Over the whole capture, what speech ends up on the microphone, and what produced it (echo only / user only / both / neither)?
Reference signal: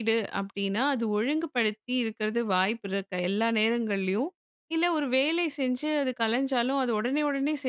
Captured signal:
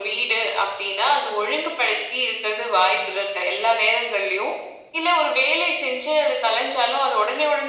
echo only